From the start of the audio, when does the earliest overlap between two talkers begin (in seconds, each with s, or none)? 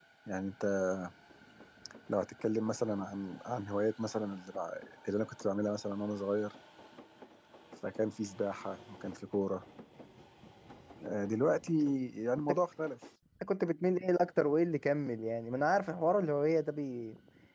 none